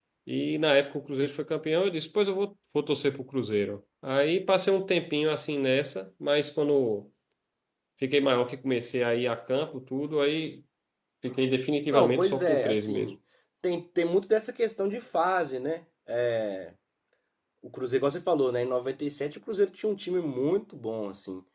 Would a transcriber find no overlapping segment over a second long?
No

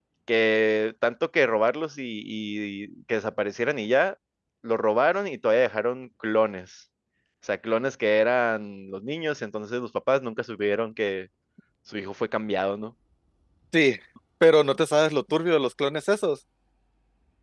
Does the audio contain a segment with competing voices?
No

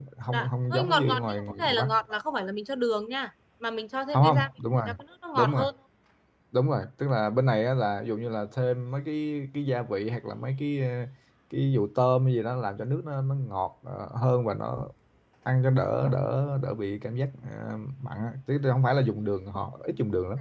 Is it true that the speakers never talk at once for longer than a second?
No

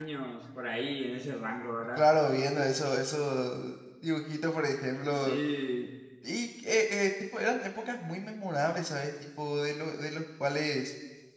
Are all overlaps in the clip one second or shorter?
Yes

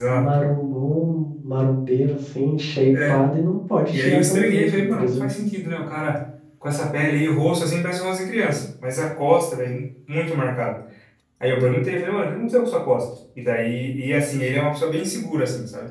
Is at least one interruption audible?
Yes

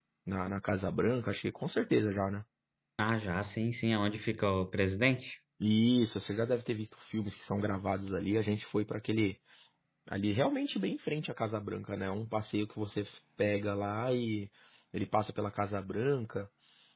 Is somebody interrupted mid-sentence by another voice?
No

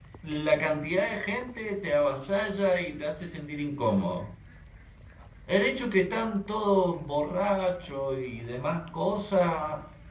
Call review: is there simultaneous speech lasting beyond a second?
No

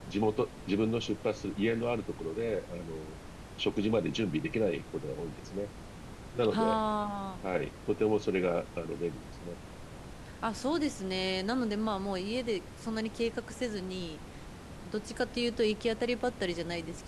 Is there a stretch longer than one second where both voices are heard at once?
No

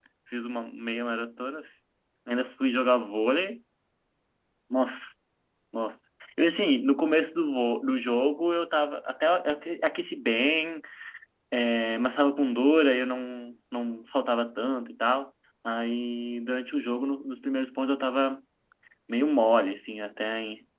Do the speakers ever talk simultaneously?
No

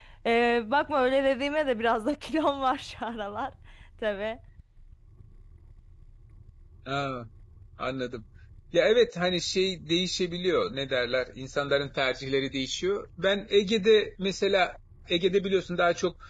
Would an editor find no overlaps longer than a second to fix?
Yes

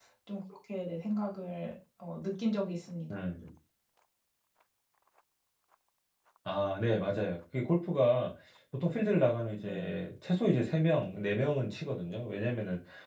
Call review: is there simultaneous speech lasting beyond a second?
No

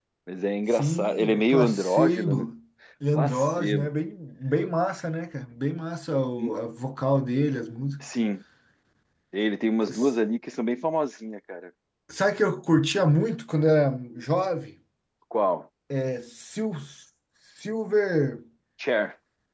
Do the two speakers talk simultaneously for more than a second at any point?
Yes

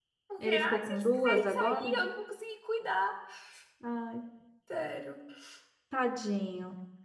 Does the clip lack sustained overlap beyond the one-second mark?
No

